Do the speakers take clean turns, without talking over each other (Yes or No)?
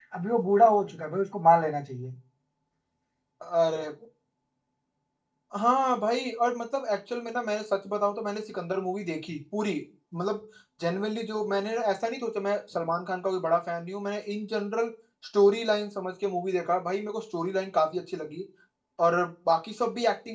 Yes